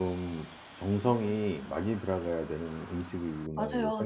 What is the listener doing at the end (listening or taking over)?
taking over